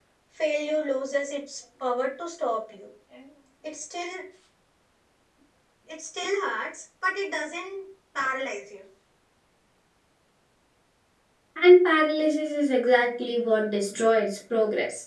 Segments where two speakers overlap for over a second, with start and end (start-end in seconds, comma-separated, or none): none